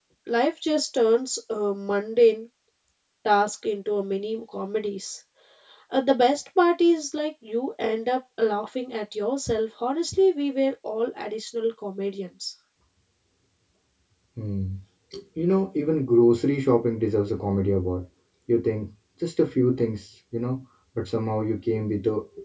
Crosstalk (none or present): none